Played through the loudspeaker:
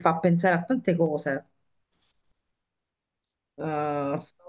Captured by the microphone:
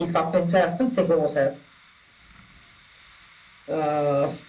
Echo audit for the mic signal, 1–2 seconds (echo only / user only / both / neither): echo only